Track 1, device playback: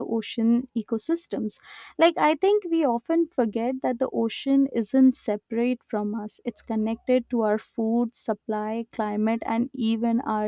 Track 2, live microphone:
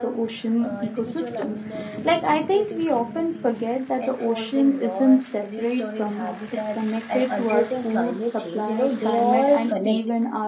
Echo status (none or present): present